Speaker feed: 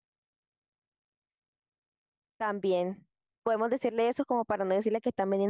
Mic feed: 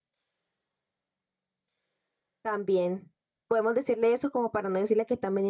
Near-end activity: none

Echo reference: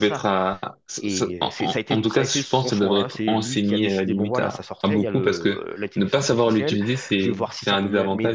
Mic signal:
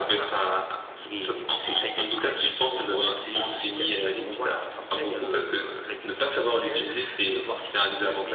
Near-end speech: none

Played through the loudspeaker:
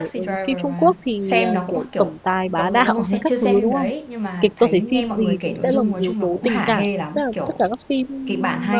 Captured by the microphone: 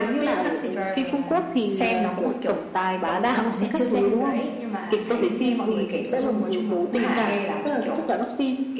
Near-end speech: none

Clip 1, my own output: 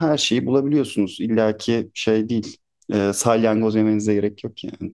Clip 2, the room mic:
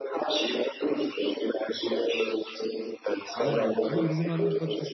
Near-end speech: present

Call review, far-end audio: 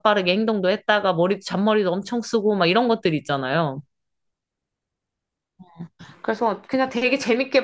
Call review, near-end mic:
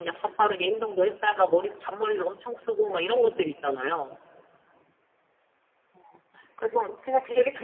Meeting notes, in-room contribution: none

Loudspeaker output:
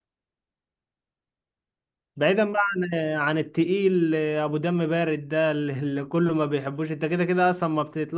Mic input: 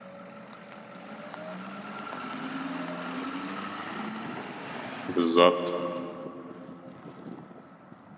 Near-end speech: present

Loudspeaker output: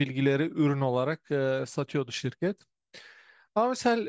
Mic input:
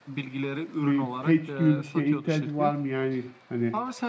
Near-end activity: present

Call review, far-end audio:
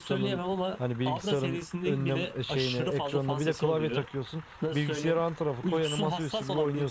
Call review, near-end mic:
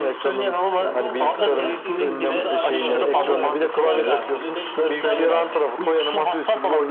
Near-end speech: present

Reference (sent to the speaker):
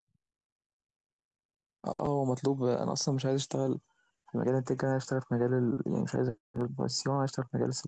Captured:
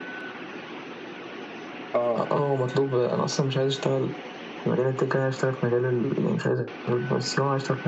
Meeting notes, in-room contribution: present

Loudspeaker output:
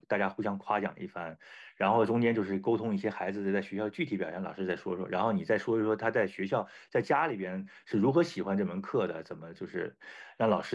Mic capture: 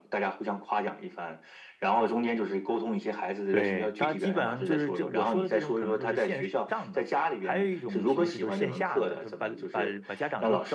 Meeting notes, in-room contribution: present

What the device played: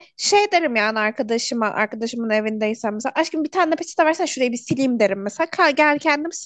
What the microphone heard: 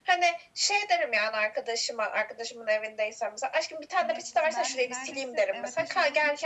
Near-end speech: present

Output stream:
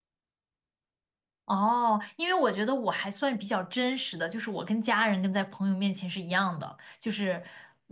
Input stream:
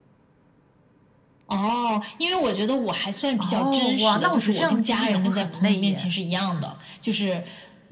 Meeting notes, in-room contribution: present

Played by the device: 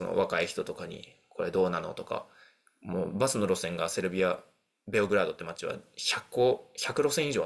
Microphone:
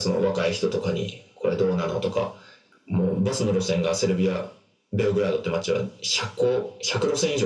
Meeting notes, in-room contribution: none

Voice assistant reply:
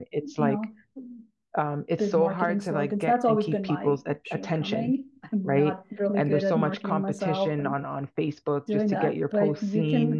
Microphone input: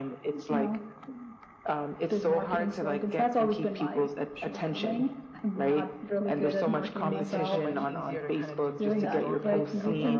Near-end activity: present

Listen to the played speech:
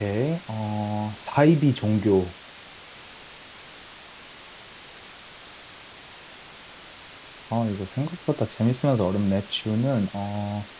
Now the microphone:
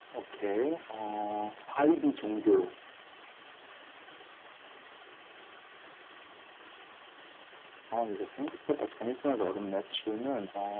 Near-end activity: none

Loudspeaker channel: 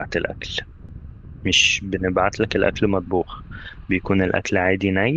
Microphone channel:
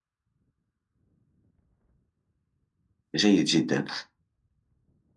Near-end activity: present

